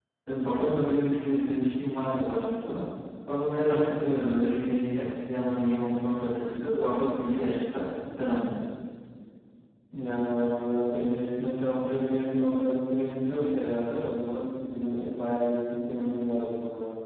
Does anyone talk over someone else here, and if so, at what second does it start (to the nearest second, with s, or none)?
none